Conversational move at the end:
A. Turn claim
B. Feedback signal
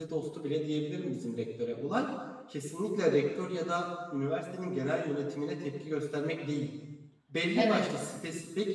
B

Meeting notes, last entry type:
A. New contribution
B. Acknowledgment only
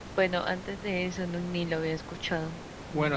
A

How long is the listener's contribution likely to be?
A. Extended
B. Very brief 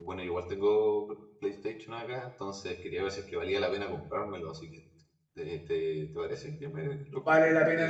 A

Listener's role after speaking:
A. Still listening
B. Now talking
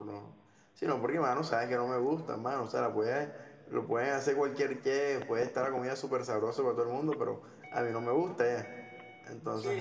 B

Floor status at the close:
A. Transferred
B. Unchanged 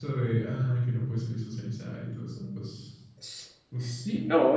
A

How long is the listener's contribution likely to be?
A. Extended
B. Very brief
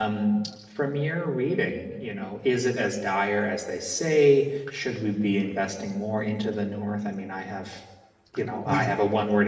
B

